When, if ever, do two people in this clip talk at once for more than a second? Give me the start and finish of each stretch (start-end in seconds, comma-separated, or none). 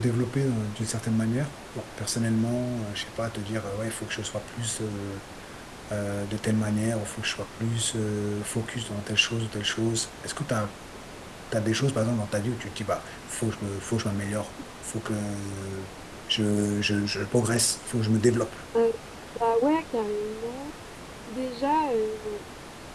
none